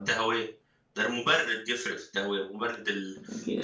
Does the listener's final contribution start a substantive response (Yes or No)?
Yes